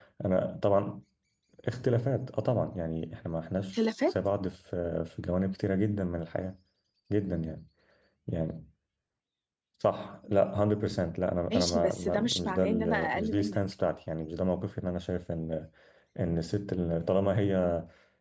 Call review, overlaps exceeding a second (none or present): present